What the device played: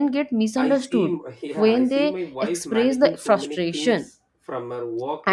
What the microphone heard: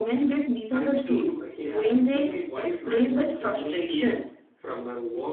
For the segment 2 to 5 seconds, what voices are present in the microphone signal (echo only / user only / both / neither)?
echo only